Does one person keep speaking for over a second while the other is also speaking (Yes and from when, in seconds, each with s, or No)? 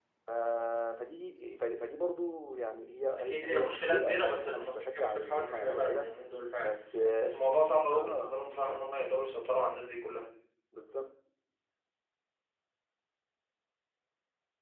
Yes, from 3.2 s